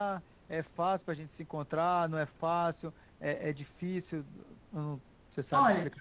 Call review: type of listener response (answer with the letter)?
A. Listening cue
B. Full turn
B